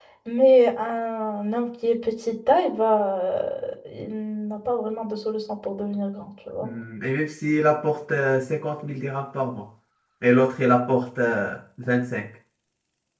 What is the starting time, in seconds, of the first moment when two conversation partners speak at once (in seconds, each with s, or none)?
none